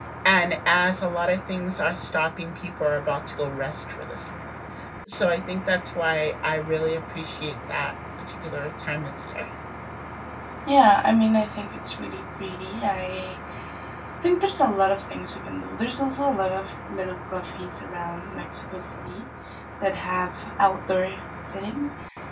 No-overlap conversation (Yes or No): Yes